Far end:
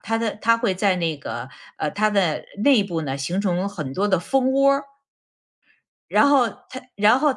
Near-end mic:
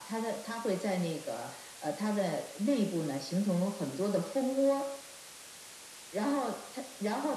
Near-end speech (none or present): none